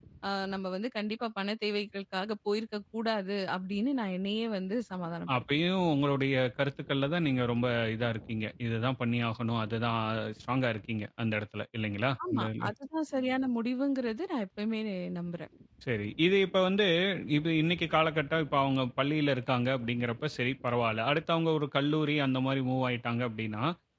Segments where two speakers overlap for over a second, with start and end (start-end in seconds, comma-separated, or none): none